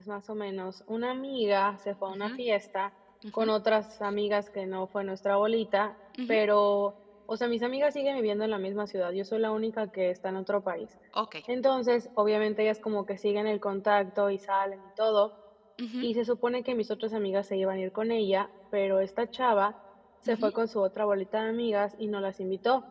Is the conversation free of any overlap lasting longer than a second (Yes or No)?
Yes